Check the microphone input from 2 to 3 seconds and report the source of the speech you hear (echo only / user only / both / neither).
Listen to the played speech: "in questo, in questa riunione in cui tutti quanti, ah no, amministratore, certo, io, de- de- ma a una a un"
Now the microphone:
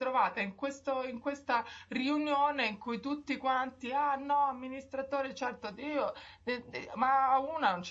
echo only